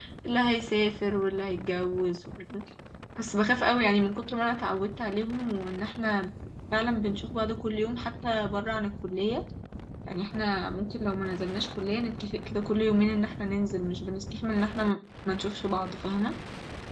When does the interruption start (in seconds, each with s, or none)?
none